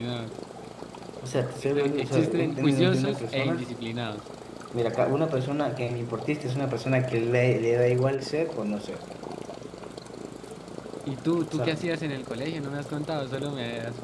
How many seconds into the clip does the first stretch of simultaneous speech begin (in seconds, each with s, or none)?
1.8 s